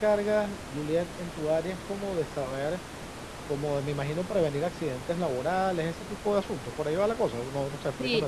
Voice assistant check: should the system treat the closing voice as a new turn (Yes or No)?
Yes